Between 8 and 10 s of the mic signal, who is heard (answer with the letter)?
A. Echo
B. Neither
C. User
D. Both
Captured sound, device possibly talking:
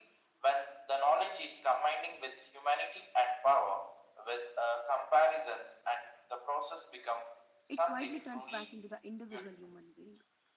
D